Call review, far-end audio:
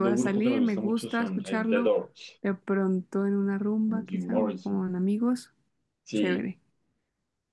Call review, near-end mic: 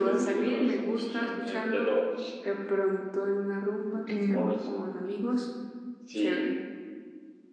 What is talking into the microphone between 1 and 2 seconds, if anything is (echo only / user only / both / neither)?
echo only